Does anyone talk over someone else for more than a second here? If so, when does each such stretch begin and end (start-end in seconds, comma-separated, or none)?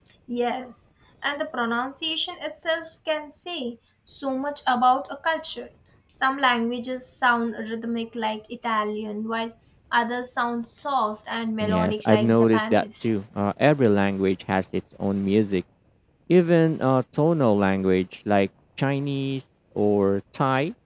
11.6-13.1